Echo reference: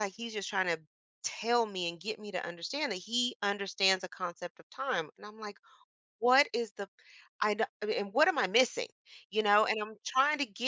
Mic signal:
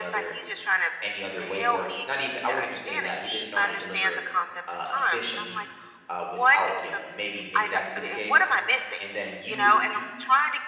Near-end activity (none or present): present